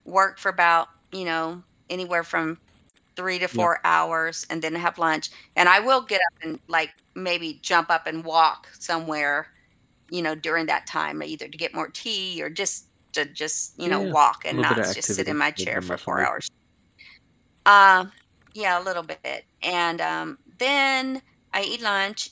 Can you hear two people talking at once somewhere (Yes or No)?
Yes